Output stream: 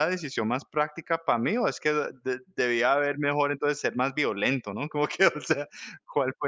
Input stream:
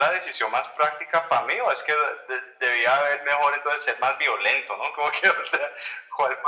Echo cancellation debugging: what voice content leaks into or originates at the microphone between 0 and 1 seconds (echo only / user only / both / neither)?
echo only